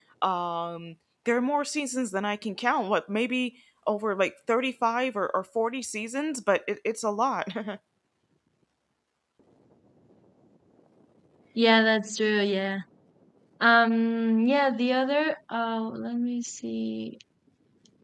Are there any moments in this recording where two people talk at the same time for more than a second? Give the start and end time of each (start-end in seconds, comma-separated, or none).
none